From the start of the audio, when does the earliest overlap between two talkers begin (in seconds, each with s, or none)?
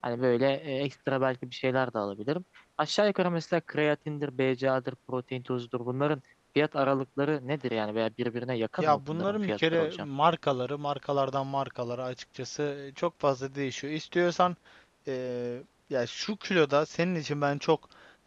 8.8 s